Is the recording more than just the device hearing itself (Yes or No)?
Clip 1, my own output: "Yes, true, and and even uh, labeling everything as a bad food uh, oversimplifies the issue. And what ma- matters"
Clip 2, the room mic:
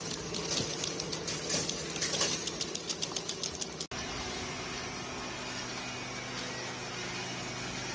No